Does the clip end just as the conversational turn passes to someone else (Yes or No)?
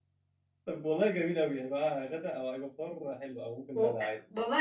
Yes